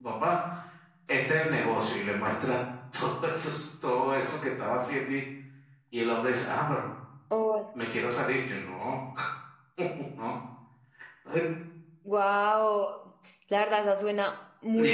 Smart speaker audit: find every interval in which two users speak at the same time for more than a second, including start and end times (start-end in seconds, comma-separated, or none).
none